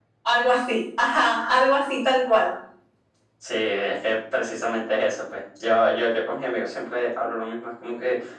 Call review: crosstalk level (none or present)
none